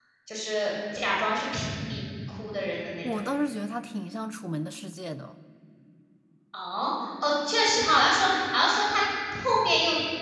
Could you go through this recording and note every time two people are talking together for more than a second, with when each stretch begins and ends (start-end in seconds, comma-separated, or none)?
none